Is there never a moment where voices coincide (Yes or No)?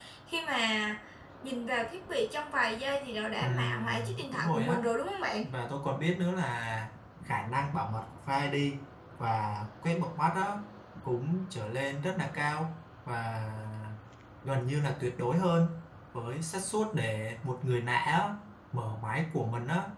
No